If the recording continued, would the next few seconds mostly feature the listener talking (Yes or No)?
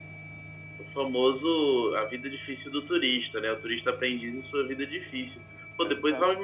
No